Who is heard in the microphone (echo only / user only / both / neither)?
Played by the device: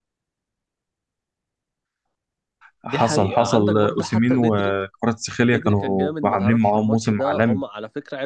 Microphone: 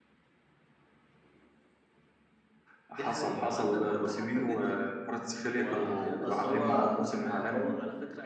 both